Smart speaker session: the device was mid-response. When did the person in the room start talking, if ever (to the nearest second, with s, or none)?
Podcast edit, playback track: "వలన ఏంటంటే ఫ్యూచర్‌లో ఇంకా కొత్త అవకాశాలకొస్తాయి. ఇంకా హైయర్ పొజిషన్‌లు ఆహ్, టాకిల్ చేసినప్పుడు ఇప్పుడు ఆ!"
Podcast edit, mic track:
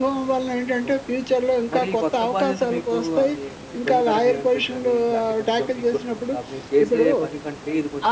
1 s